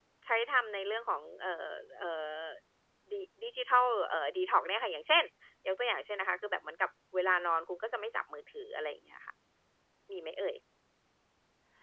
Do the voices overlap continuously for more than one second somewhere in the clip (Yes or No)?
No